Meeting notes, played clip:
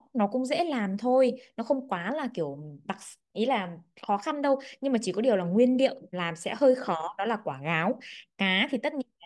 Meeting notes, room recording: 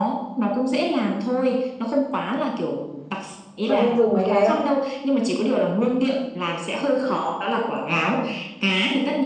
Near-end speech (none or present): present